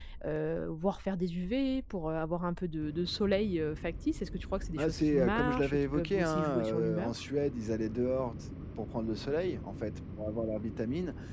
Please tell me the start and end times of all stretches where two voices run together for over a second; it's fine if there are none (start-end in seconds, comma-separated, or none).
4.8-7.1